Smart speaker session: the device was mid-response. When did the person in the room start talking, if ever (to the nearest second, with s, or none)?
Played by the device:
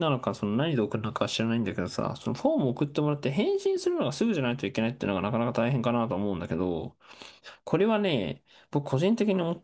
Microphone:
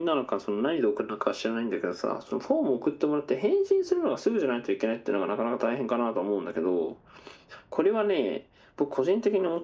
none